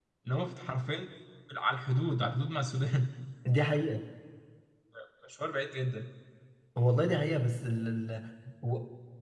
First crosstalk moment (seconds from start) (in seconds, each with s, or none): none